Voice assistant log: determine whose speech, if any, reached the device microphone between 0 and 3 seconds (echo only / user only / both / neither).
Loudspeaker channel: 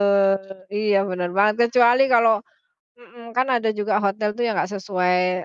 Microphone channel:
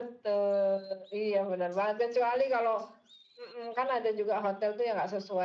echo only